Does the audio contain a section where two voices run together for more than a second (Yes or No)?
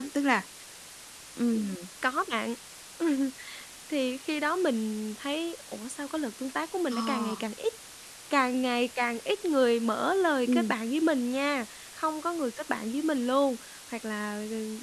No